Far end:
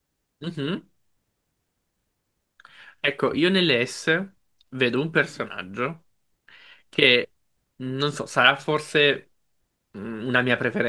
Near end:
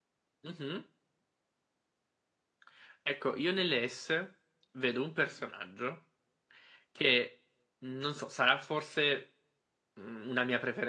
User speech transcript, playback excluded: none

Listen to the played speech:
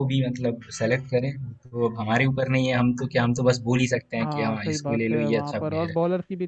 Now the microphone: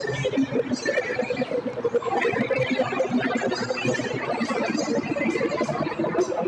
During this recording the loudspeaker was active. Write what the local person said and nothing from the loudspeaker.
none

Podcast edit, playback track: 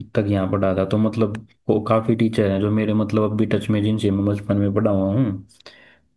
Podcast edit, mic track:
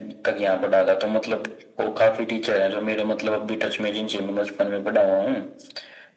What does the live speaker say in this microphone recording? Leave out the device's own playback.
none

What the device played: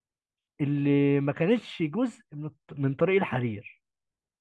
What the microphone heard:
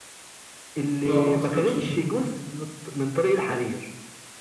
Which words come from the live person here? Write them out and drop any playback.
لا غلط الأكسجين

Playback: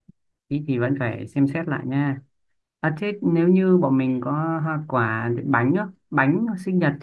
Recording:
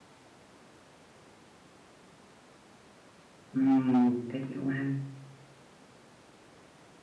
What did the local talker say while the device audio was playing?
Ừm, thế thì cũng hay.

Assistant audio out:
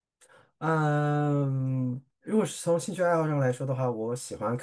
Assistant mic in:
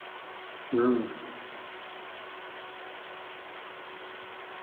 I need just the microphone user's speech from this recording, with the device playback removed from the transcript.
嗯

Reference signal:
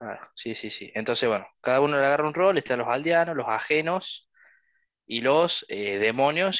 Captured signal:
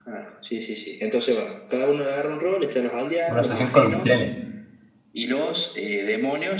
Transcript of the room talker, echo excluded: Una obsesión con los trenes.

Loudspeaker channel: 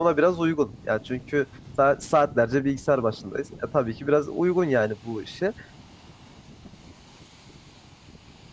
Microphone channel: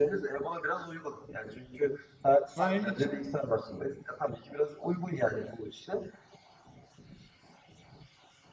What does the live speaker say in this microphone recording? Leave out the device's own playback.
Ha, ilginç.

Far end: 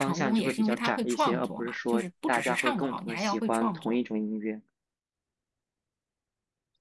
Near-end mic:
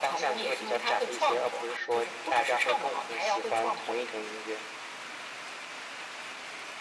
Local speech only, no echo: none

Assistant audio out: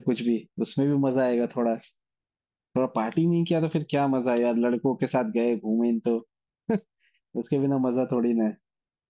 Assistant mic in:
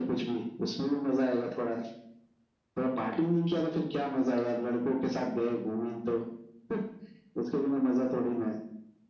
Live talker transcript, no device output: none

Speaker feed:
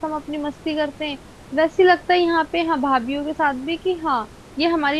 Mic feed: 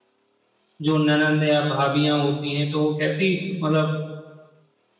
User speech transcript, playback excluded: जो ननद या भाभियाँ होती हैं तो वो कैसी मतलब

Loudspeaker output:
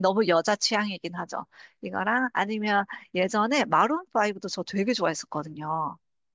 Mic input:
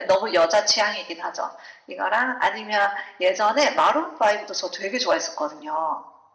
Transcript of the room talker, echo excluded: none

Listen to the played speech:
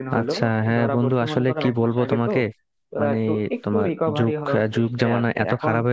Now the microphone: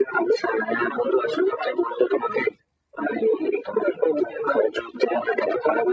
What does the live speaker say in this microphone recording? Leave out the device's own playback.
none

